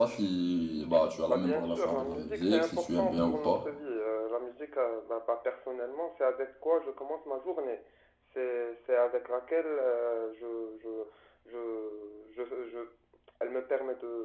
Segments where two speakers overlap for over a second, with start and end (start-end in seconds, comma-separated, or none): 1.3-3.6